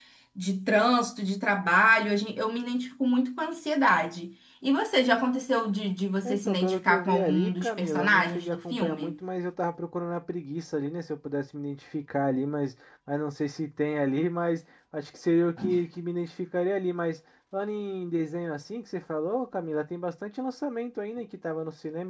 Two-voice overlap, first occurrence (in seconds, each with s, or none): 6.2 s